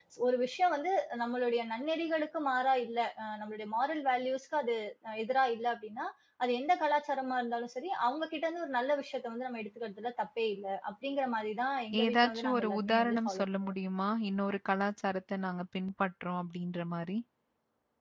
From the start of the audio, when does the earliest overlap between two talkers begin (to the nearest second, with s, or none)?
12 s